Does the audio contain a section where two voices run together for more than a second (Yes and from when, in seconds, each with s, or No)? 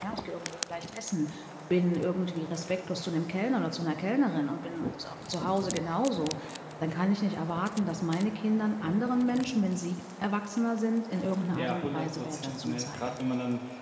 Yes, from 11.5 s